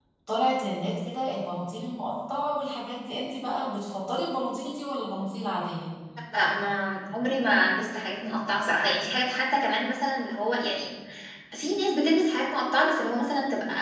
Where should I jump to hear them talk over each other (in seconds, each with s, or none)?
none